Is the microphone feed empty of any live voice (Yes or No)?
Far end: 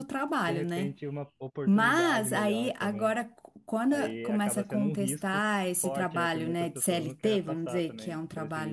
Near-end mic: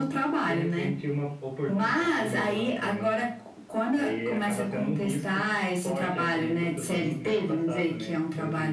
Yes